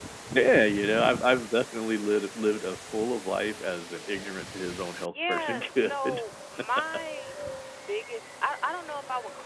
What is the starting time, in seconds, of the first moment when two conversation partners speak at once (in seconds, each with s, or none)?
5.0 s